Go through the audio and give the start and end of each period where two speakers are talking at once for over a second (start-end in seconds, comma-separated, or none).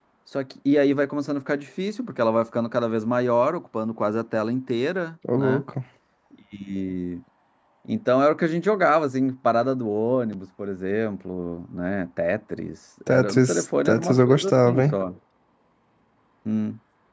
13.1-15.0